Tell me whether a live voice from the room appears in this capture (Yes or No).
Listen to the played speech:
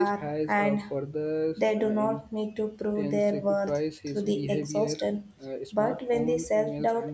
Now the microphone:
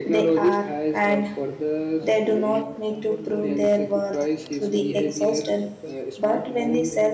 Yes